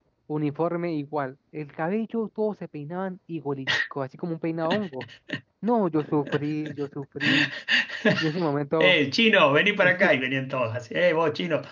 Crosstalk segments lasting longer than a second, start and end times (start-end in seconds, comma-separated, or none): none